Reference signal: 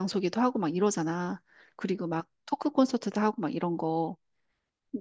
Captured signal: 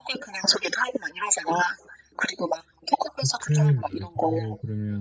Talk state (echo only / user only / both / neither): both